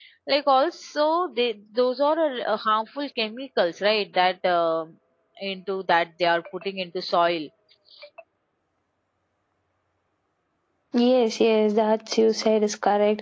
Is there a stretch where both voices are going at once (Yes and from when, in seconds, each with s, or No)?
No